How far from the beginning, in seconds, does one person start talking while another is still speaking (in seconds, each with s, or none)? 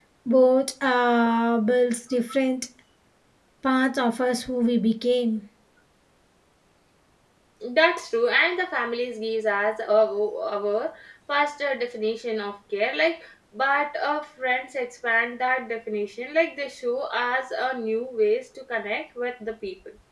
none